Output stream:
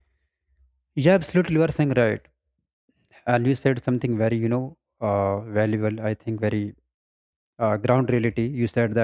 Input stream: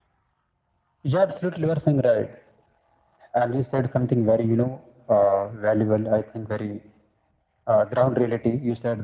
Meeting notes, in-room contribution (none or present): none